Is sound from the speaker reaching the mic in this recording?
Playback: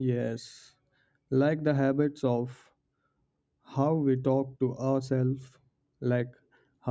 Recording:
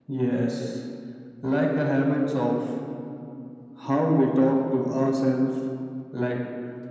Yes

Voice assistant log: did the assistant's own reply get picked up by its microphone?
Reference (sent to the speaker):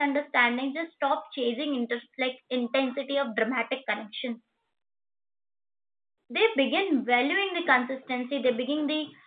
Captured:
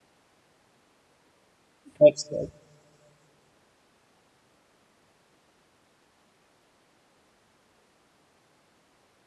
No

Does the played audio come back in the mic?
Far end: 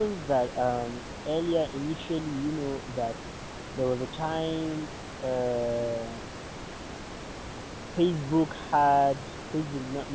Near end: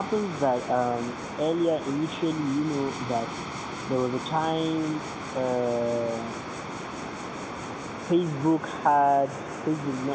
Yes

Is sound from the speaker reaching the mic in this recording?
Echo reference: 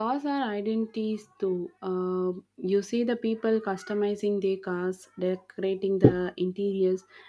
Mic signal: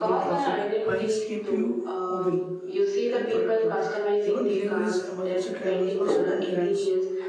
Yes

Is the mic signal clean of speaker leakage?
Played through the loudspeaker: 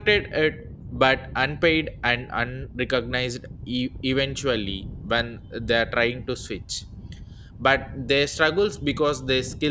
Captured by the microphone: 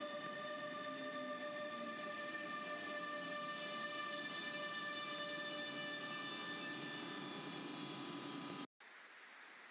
Yes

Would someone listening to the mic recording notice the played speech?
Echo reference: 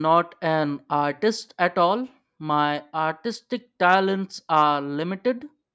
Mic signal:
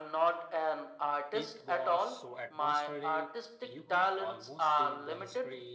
Yes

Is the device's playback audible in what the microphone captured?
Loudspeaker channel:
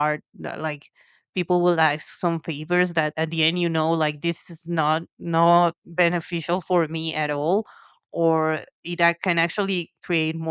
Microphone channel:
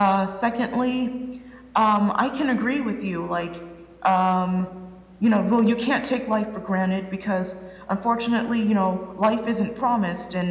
No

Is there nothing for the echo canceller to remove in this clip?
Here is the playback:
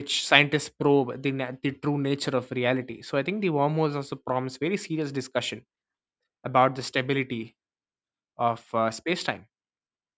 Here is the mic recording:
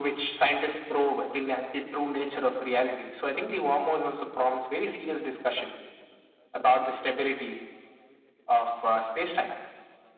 No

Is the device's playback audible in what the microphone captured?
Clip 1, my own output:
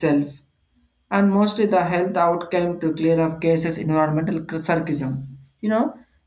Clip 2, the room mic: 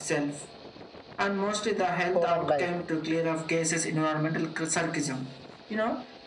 Yes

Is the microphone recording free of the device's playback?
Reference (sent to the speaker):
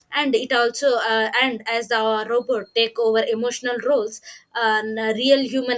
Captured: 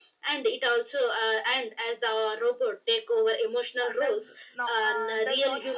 No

